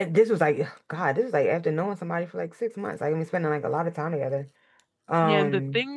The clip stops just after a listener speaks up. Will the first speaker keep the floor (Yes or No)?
No